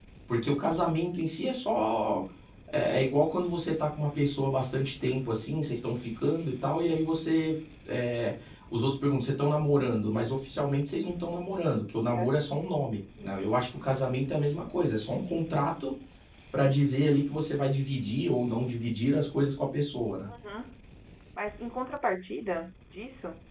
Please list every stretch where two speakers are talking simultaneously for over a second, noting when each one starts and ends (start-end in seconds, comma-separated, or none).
none